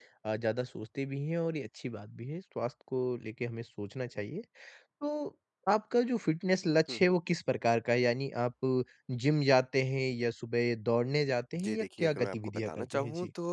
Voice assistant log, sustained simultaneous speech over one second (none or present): present